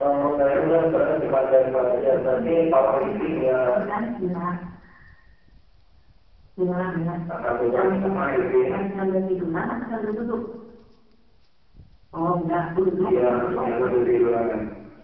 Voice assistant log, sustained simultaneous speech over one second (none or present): present